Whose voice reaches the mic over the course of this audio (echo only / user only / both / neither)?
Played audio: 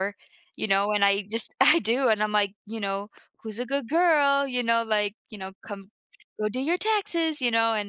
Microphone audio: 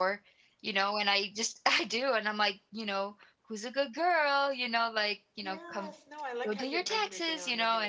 both